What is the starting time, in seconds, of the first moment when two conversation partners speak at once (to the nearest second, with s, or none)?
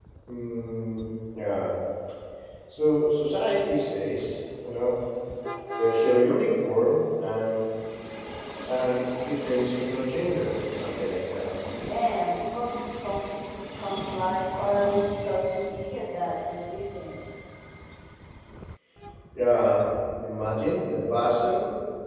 none